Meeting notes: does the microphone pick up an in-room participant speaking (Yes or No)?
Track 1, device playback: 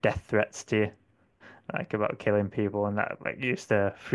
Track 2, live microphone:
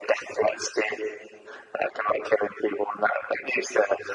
No